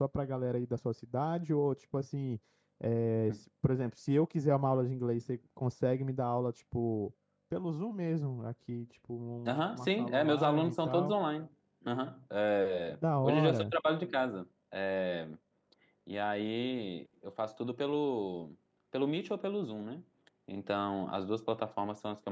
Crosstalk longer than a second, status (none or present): present